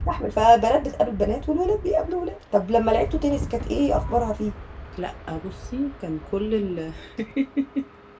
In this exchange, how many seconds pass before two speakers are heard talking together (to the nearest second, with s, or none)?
none